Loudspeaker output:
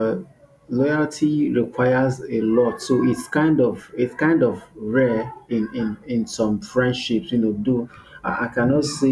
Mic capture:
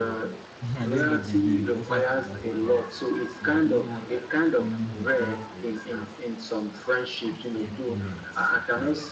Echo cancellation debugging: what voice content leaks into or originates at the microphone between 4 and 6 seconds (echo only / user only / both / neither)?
both